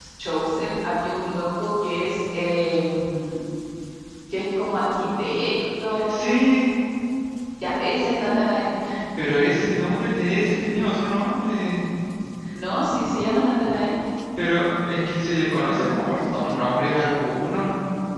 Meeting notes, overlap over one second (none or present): none